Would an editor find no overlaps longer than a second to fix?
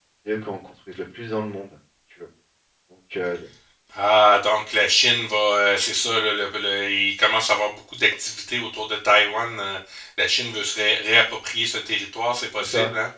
Yes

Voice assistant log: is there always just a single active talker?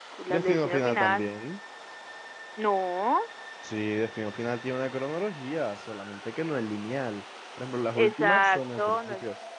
No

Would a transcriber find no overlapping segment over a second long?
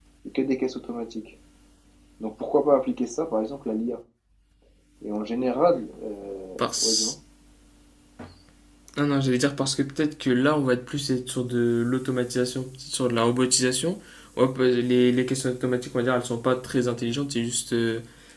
Yes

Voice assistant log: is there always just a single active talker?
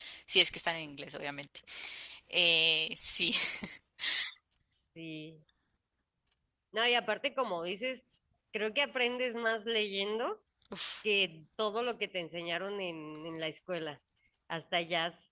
Yes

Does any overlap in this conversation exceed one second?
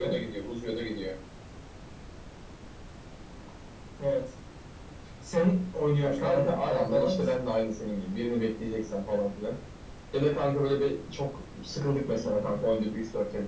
Yes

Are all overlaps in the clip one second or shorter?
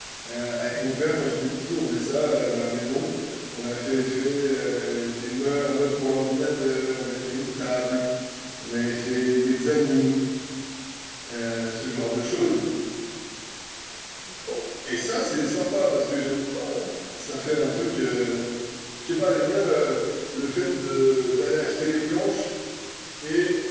Yes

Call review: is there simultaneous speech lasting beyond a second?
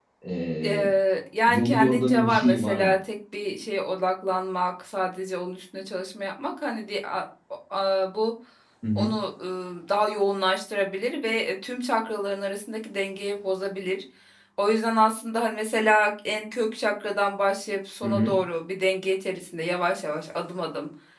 Yes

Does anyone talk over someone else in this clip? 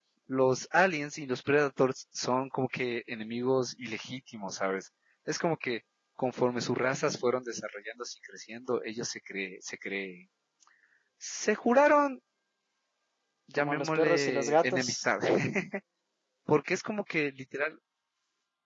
Yes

